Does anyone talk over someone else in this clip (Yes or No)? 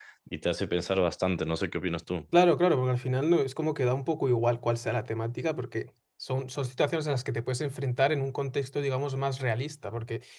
No